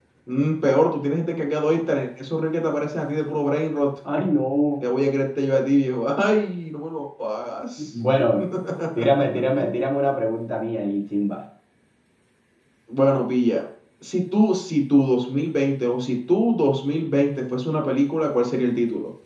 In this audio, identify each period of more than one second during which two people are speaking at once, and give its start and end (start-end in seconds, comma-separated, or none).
none